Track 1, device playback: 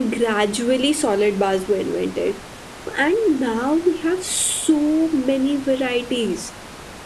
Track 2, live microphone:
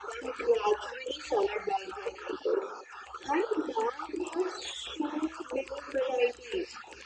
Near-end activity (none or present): none